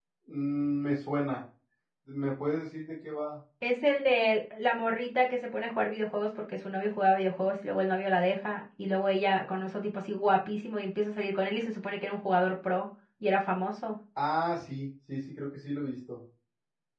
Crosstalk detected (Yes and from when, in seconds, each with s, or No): No